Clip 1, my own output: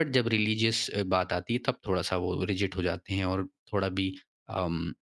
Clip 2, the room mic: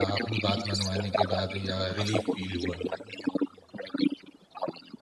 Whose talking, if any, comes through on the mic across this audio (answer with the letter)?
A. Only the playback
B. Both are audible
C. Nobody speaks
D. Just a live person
B